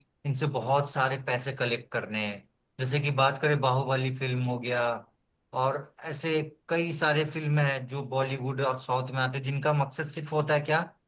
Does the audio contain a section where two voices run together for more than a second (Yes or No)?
No